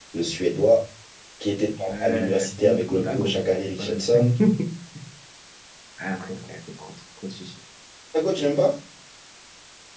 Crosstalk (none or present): present